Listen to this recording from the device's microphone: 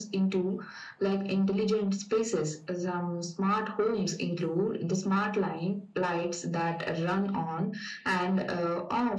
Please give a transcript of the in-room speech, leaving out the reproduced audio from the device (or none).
none